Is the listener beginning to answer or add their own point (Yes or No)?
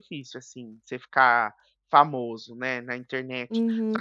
Yes